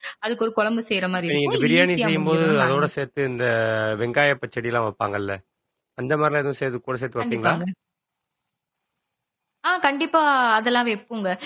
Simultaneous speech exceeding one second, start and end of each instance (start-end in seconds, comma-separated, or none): 1.2-2.9